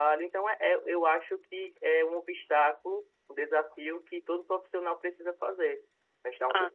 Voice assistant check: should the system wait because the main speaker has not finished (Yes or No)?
Yes